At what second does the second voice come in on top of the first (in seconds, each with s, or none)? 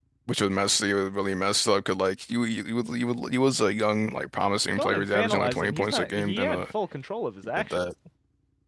4.8 s